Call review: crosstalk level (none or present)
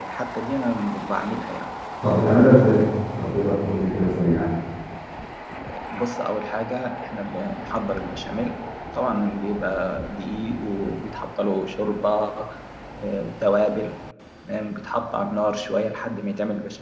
none